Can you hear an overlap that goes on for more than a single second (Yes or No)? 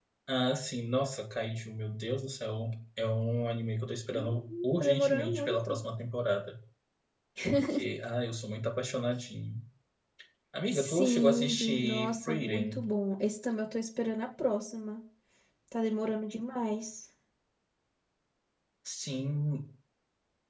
Yes